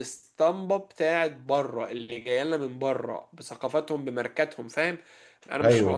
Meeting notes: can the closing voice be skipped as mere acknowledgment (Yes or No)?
Yes